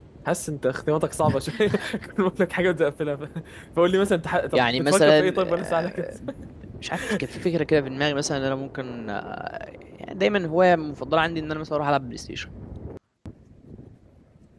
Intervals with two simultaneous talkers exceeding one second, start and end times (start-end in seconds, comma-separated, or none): 4.5-6.0